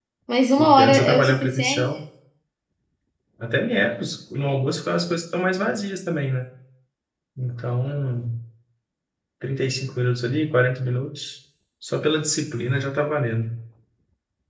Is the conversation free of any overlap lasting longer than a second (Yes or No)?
No